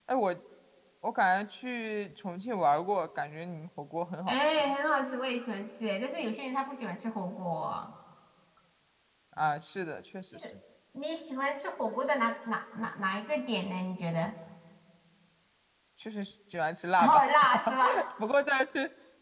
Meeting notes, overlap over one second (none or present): none